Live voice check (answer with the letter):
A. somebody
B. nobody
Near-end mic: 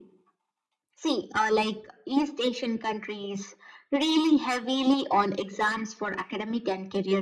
B